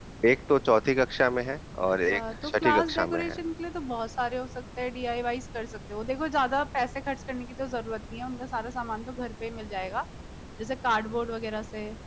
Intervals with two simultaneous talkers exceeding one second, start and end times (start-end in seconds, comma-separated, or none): 1.9-3.4